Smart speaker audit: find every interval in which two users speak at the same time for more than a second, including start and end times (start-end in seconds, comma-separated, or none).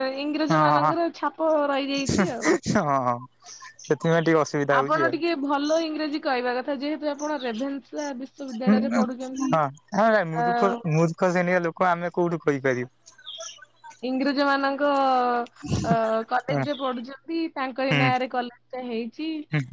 none